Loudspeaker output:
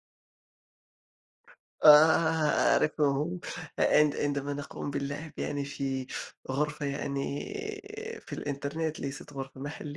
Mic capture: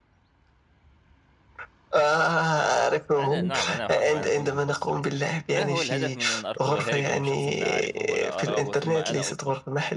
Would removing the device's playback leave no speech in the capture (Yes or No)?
No